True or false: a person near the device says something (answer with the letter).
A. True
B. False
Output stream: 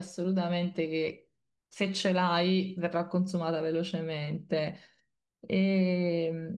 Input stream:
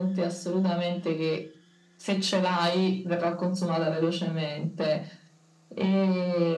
B